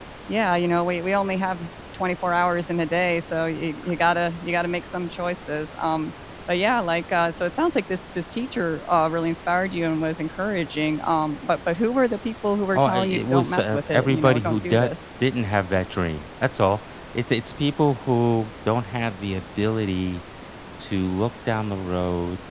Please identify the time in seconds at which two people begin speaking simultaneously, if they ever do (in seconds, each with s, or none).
12.7 s